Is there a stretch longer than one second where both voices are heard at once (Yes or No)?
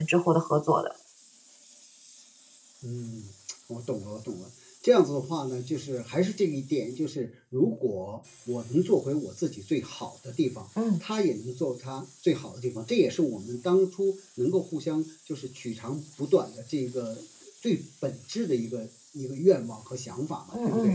No